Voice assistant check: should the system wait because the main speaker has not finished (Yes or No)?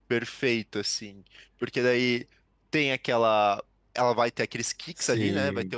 Yes